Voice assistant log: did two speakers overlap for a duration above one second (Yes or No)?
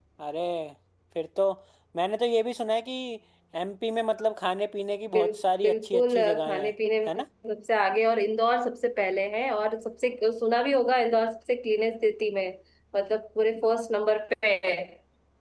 Yes